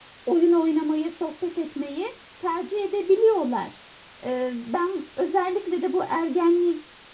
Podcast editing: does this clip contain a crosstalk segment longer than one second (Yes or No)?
No